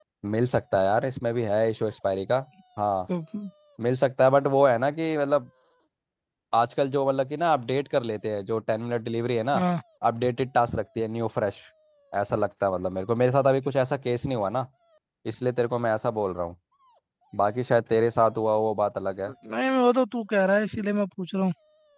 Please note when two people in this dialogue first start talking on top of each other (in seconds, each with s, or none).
none